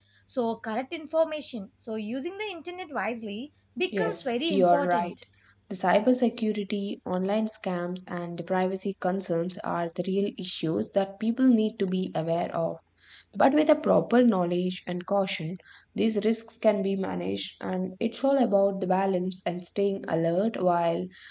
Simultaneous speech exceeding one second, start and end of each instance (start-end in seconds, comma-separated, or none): 3.9-5.1